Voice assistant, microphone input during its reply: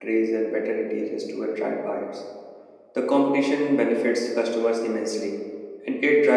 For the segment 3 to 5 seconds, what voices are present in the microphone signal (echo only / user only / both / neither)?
user only